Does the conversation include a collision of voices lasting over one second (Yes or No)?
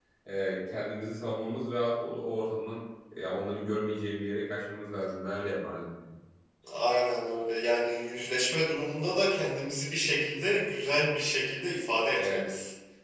No